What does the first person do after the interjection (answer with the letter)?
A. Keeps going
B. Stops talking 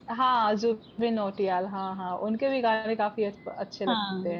B